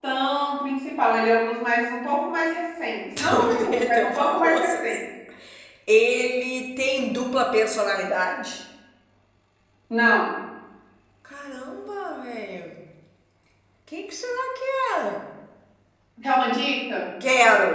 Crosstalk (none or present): present